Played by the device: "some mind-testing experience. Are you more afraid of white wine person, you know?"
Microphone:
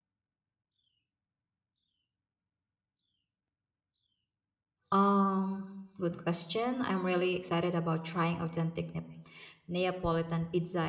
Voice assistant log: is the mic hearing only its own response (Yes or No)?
No